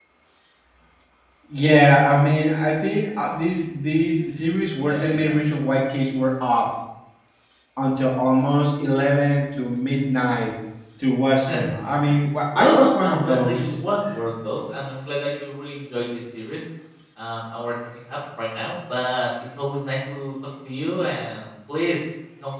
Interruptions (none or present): present